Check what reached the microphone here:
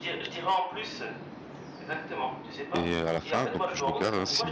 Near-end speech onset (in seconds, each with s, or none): 2.7 s